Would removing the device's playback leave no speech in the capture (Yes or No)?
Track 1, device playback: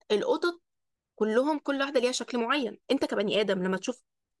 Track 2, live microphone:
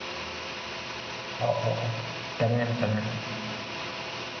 No